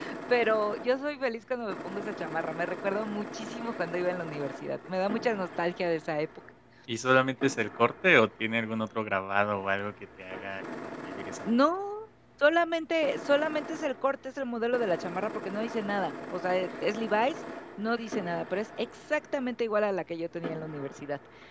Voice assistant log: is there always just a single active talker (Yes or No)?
Yes